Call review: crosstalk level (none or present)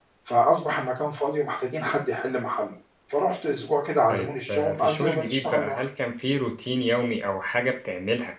present